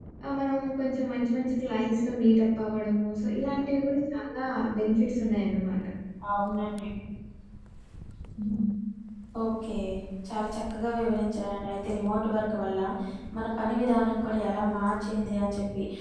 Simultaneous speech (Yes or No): No